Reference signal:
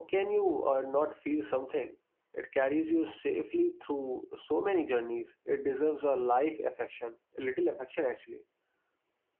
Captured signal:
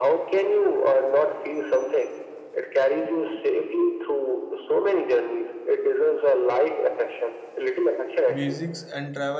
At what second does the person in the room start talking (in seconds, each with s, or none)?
8.3 s